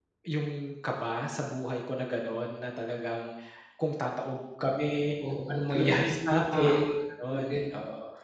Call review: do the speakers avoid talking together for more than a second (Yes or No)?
No